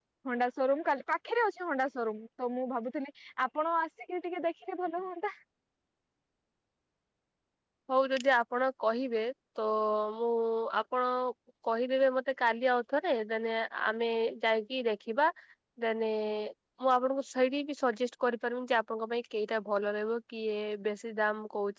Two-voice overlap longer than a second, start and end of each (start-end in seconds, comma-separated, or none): none